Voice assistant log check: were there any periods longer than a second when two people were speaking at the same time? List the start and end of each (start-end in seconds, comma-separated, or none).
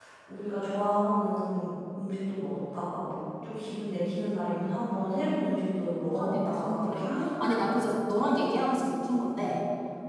6.2-7.7